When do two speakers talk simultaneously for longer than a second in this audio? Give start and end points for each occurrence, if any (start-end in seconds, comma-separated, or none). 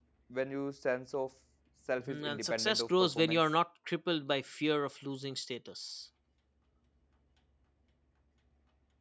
2.0-3.4